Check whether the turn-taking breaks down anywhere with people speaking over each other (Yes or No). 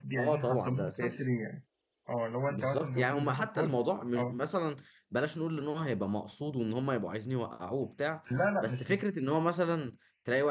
Yes